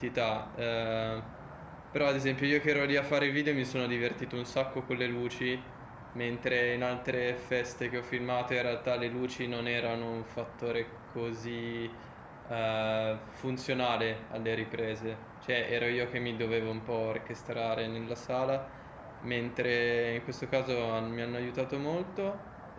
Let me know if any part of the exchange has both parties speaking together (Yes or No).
No